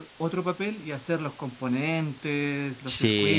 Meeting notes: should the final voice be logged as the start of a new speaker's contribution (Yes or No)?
Yes